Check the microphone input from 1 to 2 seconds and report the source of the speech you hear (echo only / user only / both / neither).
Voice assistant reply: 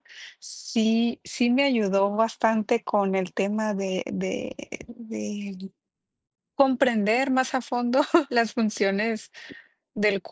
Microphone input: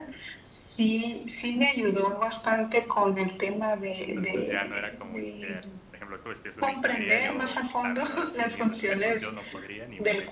echo only